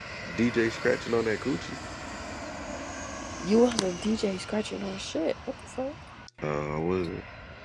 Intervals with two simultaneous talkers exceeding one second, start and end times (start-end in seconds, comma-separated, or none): none